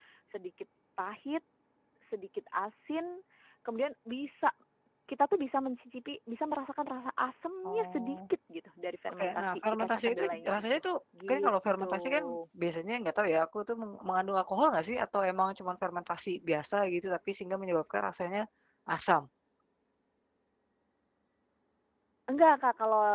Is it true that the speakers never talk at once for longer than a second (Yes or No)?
No